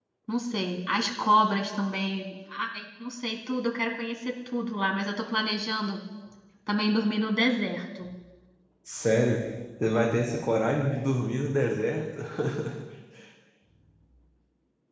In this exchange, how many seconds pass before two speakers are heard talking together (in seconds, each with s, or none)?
none